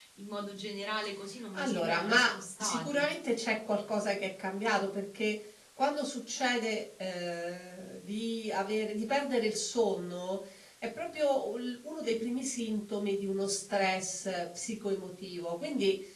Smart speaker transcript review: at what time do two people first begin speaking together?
1.5 s

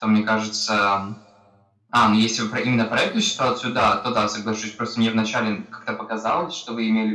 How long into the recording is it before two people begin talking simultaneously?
none

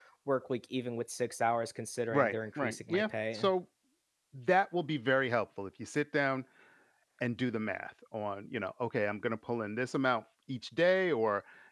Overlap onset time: 2.1 s

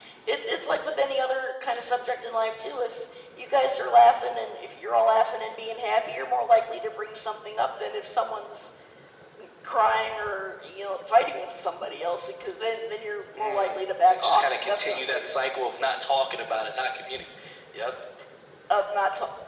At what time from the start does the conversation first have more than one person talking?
13.4 s

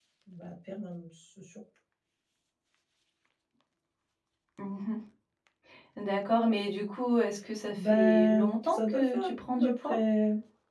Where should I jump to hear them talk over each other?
7.8 s

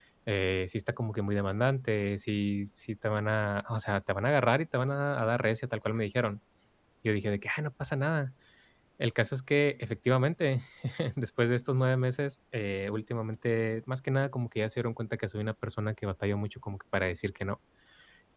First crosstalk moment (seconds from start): none

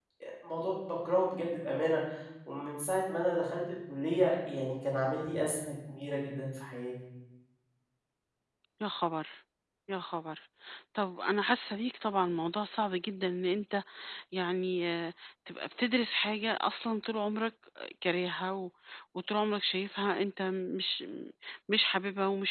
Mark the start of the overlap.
none

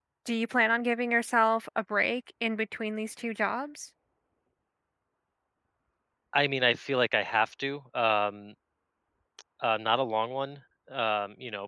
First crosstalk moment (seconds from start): none

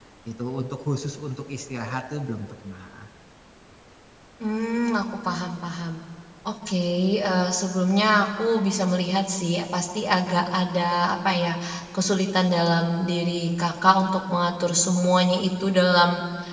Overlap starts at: none

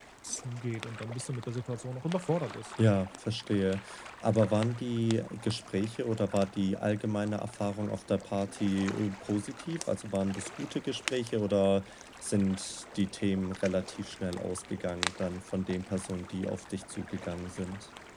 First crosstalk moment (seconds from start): none

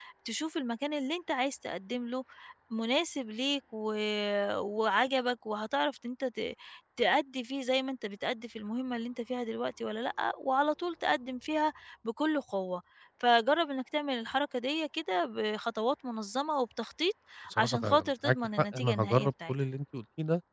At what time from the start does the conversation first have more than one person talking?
17.6 s

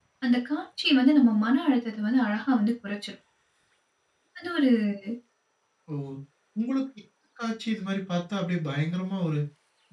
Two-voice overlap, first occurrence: none

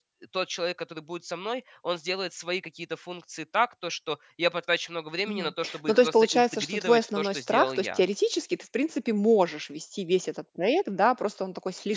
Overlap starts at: 5.2 s

